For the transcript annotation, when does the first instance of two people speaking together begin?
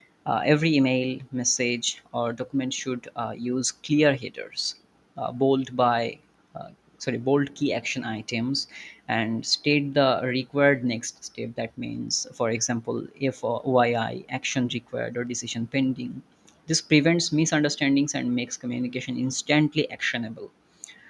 none

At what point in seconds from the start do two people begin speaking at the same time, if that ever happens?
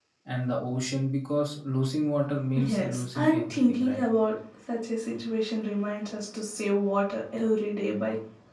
3 s

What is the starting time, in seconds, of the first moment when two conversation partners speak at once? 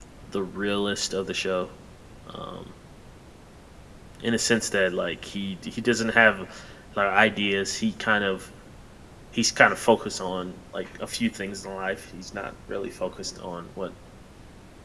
none

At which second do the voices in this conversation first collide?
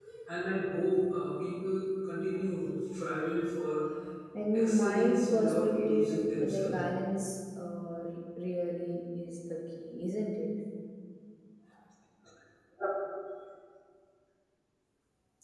5 s

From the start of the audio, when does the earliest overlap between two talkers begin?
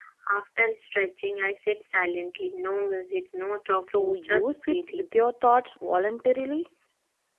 4 s

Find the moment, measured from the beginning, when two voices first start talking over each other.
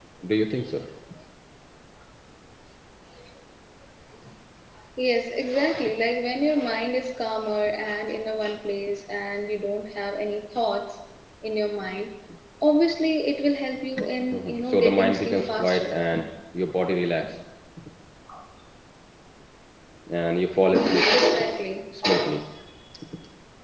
14 s

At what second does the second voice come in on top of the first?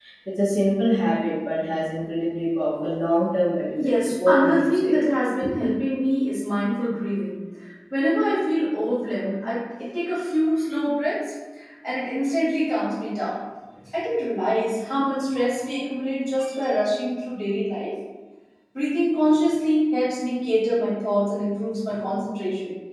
4 s

